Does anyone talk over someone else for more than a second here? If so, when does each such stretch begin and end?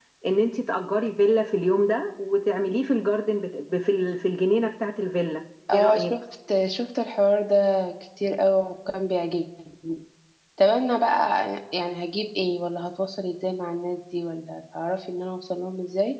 none

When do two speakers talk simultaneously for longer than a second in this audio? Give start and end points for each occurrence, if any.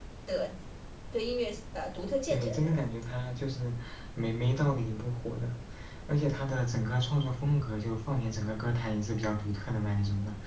none

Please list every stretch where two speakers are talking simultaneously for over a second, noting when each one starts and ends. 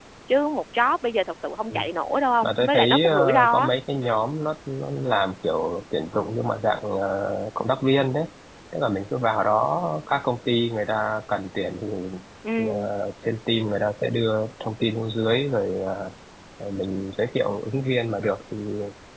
2.4-3.7

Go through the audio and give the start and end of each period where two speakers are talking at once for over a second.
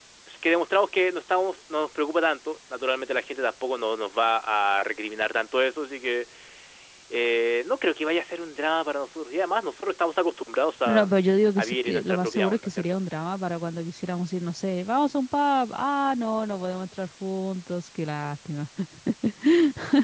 11.6-13.0

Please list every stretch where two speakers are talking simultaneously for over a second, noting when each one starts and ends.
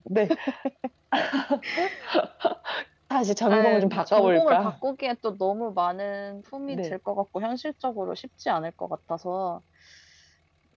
3.5-4.7

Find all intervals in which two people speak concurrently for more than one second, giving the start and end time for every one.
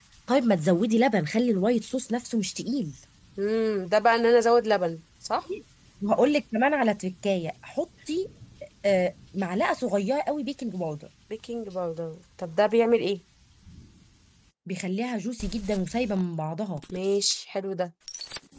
none

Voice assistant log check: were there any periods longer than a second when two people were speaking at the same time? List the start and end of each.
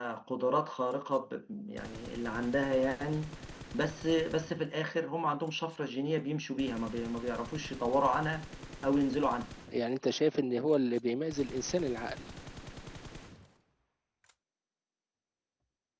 none

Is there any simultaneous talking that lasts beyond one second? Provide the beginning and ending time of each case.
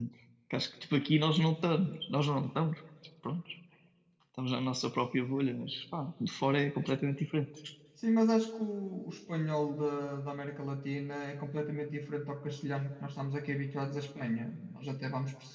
none

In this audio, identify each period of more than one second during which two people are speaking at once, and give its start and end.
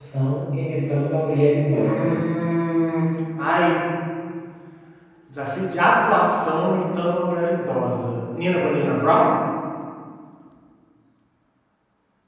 none

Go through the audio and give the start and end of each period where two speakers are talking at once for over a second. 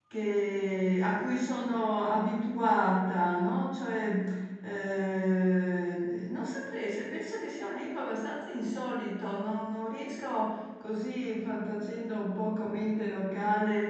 none

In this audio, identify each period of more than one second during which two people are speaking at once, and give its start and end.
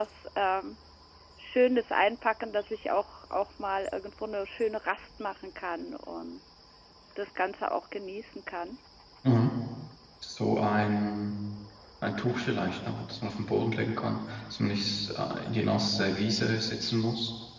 none

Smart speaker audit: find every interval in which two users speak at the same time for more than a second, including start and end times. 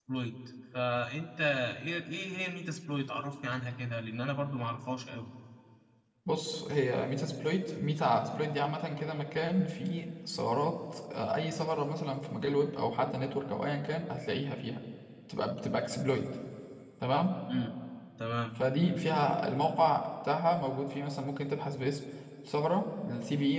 none

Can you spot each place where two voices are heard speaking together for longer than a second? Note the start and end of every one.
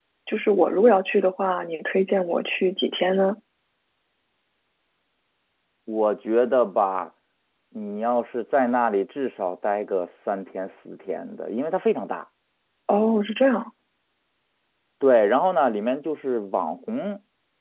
none

